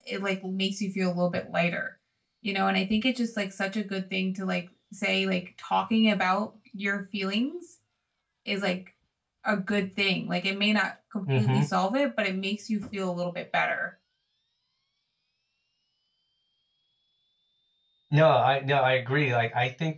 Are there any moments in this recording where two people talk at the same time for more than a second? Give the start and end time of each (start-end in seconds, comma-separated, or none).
none